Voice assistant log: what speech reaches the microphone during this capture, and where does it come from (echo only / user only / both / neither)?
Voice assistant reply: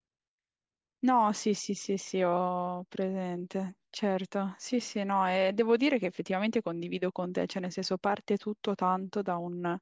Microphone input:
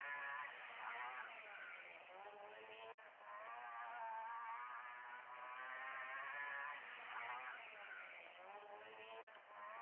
neither